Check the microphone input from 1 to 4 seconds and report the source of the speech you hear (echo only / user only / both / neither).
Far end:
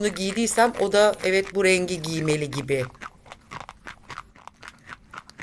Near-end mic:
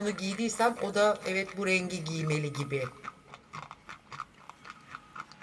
echo only